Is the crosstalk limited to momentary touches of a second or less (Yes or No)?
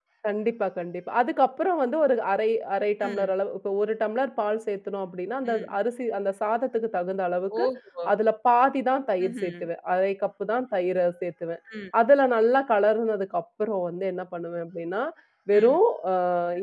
Yes